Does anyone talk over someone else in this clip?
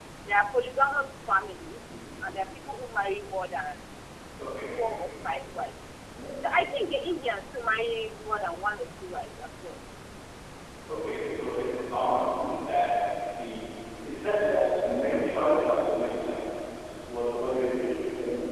No

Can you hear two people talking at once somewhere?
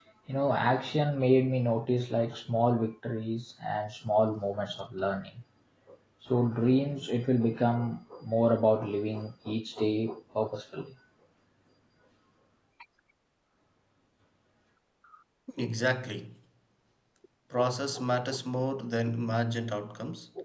No

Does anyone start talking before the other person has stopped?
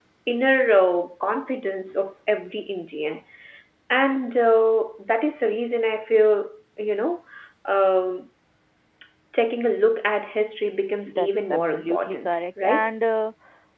Yes, from 11.1 s

